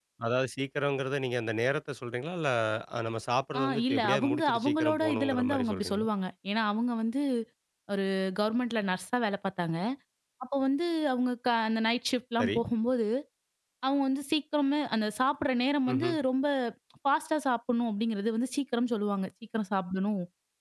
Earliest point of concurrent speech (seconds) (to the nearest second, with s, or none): 4 s